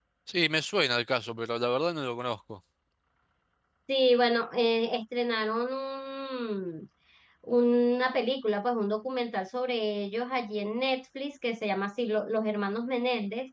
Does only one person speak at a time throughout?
Yes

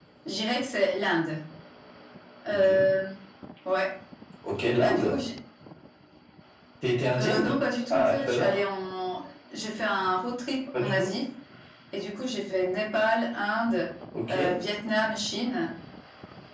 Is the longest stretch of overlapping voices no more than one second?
No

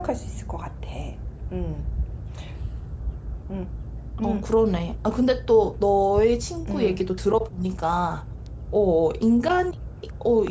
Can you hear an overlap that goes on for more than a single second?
No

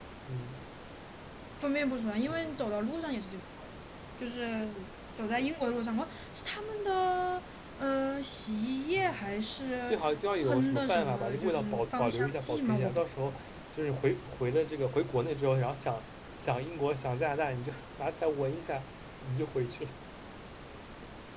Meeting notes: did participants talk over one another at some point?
Yes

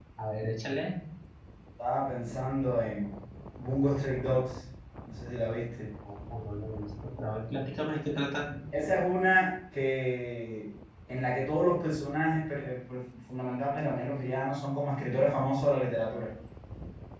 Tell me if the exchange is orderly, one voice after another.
Yes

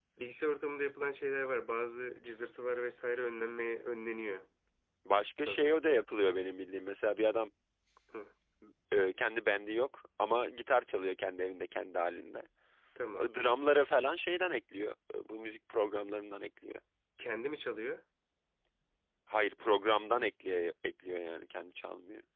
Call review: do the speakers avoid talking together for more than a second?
Yes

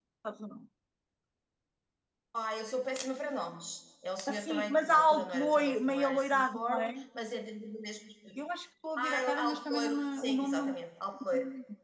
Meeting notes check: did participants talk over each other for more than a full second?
Yes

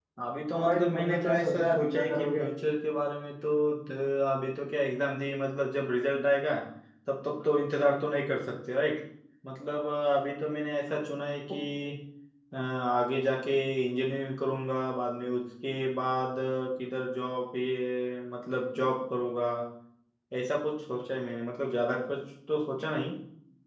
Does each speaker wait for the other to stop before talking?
No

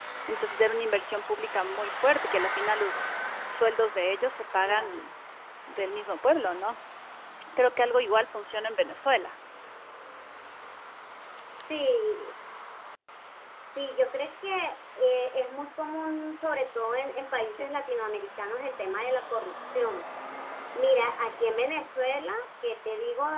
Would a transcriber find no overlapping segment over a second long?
Yes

